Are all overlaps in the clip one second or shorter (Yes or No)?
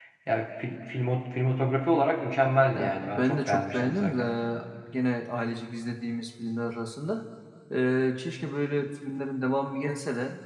No